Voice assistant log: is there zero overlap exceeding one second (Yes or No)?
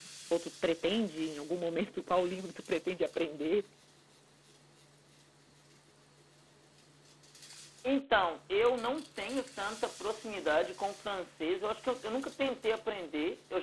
Yes